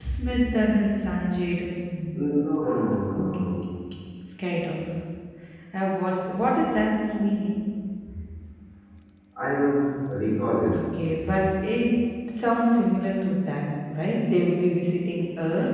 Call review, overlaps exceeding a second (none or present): none